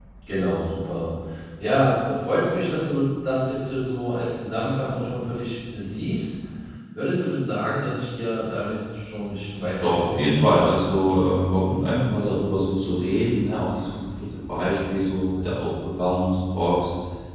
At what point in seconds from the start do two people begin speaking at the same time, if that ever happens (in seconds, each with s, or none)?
9.8 s